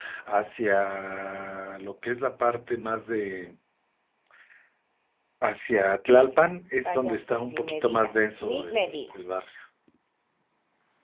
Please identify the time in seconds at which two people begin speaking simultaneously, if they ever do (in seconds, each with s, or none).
6.8 s